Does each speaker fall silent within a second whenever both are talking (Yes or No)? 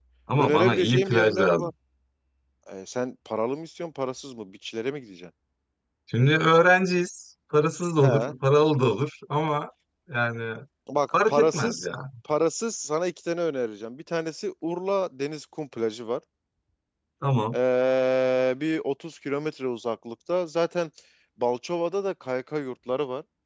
No